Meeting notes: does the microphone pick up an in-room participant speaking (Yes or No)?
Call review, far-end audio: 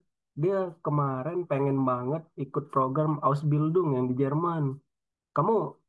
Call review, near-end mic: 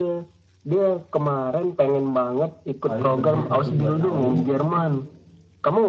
Yes